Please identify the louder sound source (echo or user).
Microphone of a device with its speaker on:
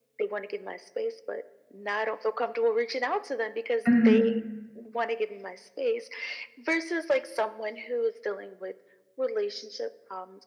user